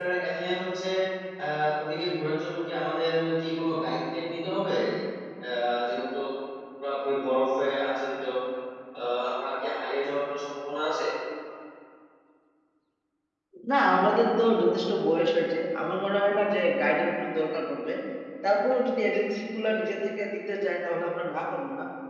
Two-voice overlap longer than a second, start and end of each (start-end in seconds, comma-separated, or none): none